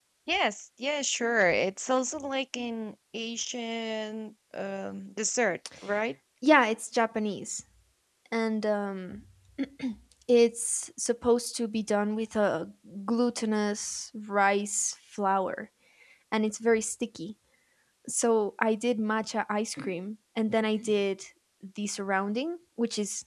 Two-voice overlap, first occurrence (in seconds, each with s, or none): none